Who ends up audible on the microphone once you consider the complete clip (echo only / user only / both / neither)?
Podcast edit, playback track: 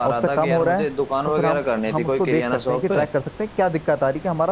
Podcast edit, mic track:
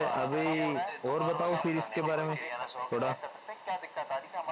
both